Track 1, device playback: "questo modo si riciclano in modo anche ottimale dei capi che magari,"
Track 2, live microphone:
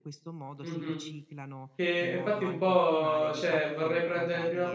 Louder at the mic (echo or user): user